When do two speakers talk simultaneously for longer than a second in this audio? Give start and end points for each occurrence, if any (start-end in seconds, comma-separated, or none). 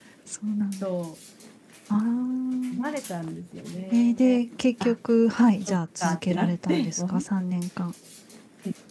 5.7-7.1